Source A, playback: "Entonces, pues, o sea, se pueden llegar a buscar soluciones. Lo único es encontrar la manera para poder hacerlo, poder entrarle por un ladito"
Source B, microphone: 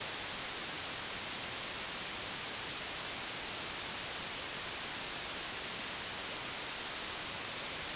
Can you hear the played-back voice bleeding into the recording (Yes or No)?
No